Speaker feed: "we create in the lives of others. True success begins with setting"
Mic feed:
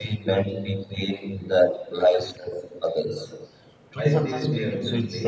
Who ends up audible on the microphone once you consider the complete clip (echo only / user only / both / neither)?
both